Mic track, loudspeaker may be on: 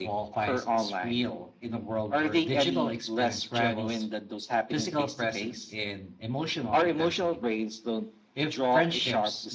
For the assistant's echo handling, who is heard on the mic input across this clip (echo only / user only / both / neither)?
both